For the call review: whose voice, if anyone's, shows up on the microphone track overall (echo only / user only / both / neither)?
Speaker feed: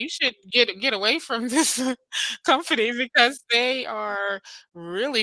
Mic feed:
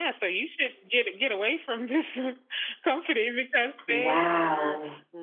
both